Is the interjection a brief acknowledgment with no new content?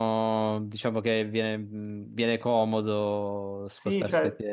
No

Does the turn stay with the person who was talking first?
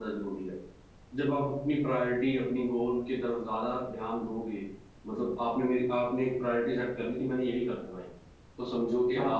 Yes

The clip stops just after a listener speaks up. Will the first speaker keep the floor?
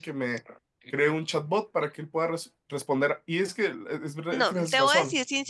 No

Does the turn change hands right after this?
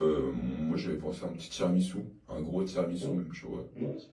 Yes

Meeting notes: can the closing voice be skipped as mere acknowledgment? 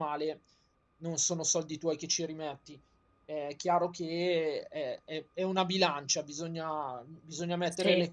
Yes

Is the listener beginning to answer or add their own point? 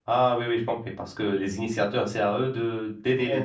Yes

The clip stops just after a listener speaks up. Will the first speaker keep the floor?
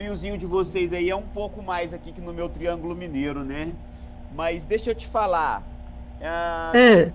Yes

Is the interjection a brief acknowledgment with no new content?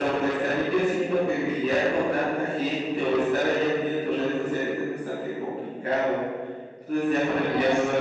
Yes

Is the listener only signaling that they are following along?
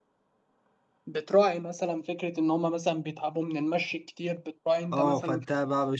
No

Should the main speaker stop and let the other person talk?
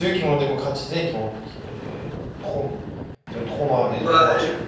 Yes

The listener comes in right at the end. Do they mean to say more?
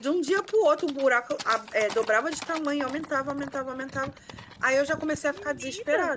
No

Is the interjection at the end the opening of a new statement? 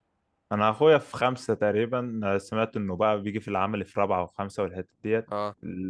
No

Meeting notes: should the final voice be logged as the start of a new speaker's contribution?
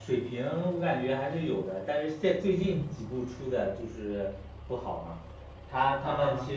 No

